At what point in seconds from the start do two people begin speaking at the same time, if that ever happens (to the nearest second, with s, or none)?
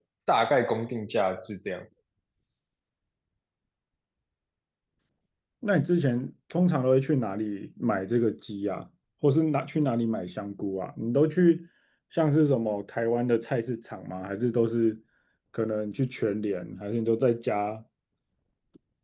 none